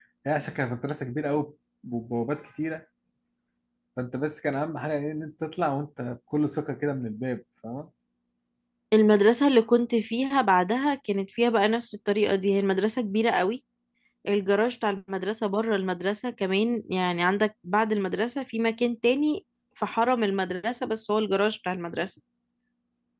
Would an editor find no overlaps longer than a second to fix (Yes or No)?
Yes